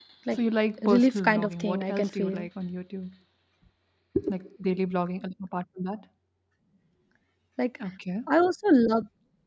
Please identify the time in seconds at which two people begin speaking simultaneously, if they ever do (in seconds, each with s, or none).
0.8 s